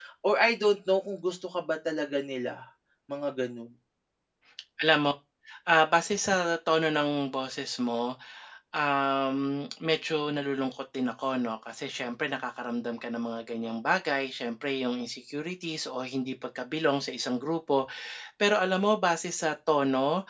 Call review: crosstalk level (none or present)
none